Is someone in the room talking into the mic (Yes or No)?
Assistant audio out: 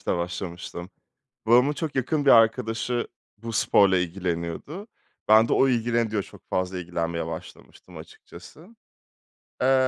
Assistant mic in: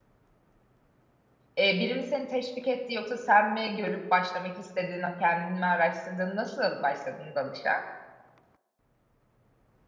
Yes